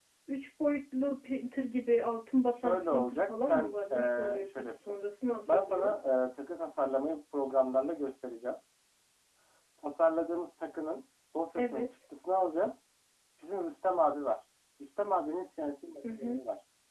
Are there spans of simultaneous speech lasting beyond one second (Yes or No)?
Yes